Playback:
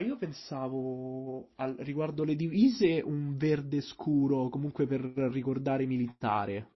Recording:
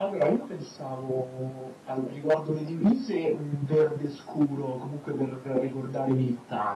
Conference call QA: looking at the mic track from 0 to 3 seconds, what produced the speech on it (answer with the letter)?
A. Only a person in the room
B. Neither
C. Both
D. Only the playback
D